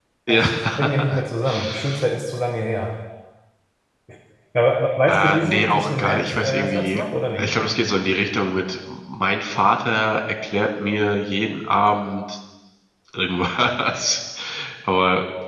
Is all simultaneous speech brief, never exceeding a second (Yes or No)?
No